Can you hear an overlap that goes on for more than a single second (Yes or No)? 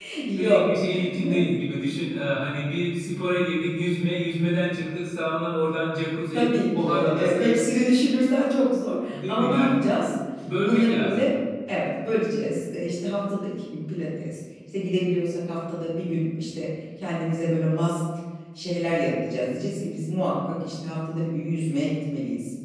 Yes